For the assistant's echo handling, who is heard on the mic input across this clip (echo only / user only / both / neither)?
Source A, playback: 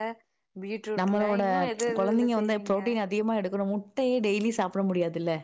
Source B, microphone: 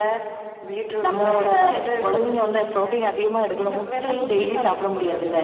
both